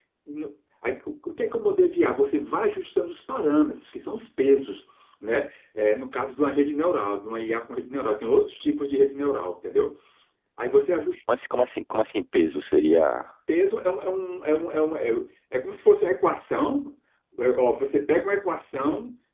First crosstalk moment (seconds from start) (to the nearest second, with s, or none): none